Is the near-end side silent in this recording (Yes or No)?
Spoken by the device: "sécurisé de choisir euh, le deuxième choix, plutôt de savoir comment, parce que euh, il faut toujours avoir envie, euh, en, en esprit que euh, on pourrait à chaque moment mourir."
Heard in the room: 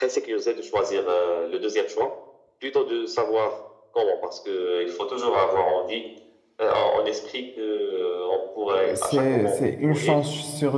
No